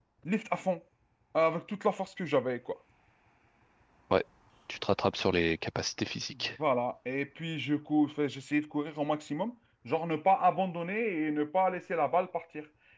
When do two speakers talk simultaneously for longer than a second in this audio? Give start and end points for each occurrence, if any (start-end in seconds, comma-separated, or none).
none